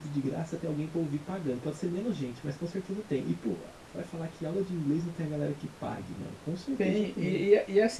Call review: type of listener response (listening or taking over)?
taking over